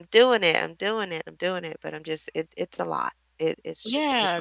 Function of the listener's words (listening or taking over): taking over